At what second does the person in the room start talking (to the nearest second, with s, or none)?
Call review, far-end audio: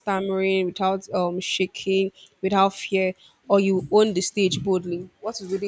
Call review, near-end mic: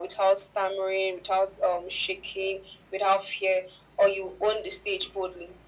none